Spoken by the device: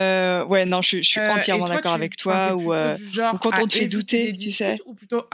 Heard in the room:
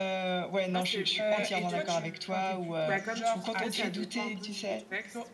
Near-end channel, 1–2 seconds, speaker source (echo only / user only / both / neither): both